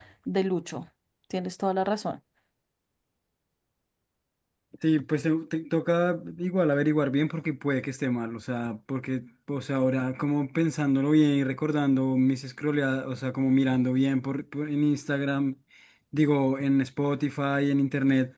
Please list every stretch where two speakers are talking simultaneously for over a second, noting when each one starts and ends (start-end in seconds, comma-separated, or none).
none